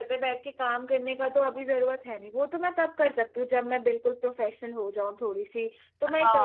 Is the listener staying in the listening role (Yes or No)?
No